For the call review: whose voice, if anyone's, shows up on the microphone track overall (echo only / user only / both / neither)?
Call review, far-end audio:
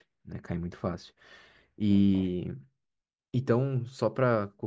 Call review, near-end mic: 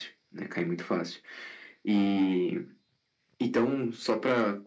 echo only